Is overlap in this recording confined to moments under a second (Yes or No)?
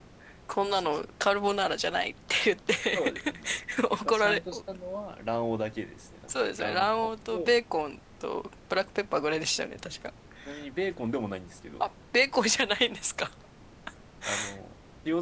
No